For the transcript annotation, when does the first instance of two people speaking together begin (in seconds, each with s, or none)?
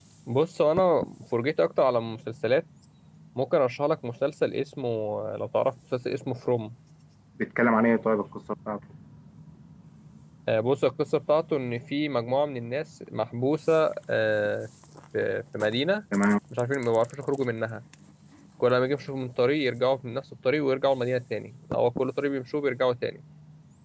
none